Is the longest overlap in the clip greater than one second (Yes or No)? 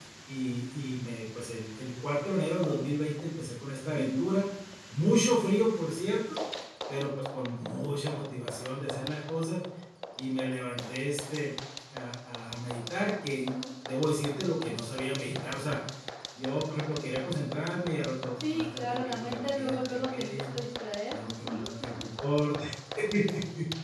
Yes